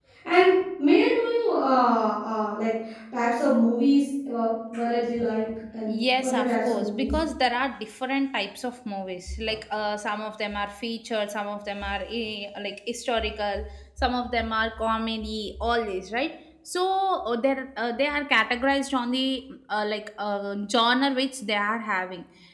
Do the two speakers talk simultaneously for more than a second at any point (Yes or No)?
Yes